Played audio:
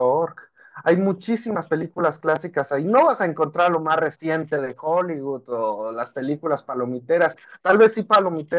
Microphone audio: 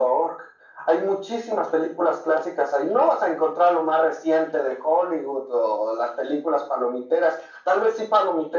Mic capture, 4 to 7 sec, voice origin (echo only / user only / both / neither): echo only